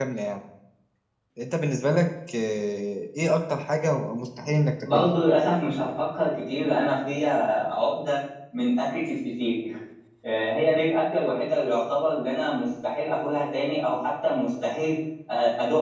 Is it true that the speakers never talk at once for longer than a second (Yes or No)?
Yes